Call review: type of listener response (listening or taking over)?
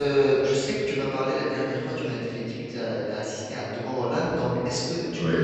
listening